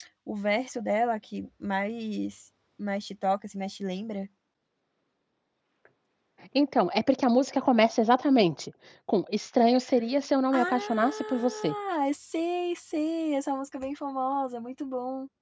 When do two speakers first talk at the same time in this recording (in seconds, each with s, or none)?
10.5 s